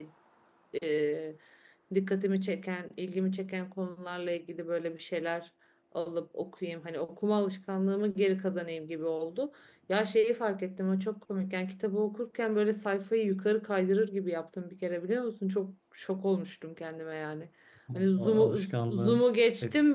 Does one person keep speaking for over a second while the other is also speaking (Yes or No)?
Yes